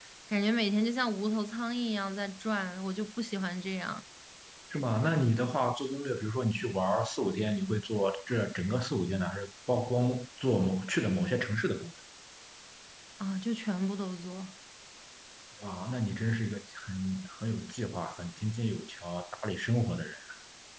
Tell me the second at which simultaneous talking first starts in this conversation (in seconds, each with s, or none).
none